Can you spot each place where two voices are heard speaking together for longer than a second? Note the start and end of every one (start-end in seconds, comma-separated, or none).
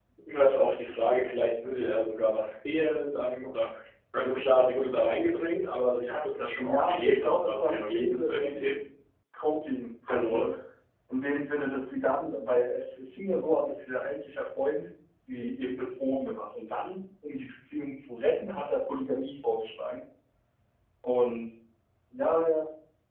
6.6-8.8